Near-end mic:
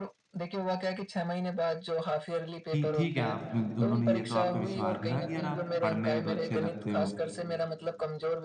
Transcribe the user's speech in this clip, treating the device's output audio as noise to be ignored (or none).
कि ठीक है आप में उन्होंने ये तो आप पे विश्वास दिखाया कि यार आप पढ़ने में तो अच्छे लगते हो,